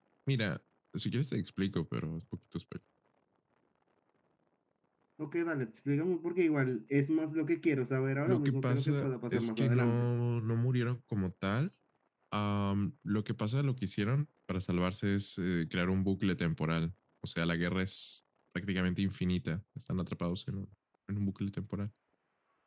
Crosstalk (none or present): present